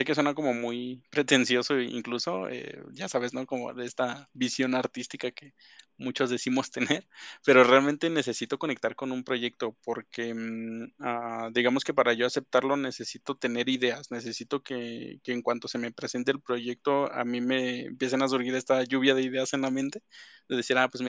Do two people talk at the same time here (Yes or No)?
No